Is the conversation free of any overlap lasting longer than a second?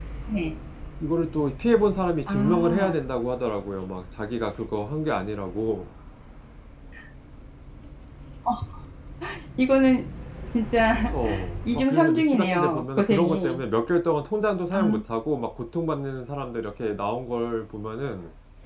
No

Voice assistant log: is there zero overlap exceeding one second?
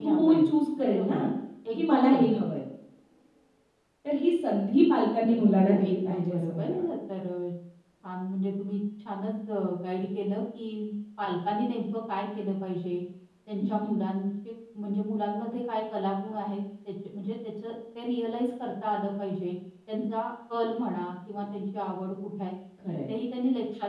No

